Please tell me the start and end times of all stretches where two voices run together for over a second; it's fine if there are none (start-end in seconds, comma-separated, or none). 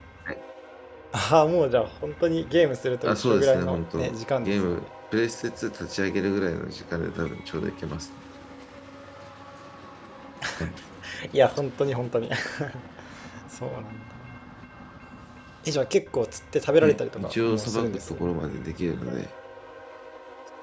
3.0-4.9, 16.8-18.3